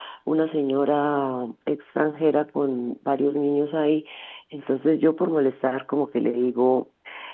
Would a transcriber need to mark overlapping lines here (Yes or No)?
No